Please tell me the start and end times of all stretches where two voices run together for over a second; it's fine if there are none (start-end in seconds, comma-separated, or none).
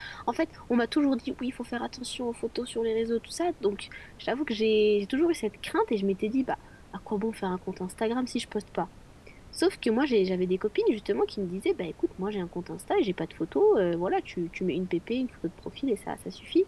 none